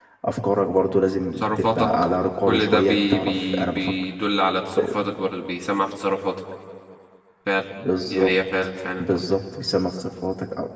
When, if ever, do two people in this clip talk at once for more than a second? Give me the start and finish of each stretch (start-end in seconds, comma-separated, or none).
2.4-3.9